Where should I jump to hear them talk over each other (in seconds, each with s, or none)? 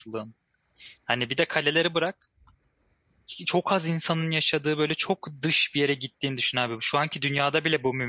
none